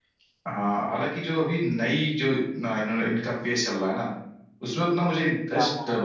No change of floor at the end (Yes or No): Yes